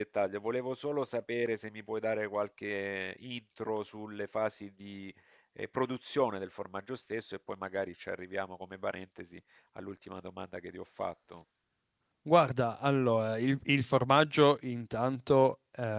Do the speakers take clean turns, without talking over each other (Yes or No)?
Yes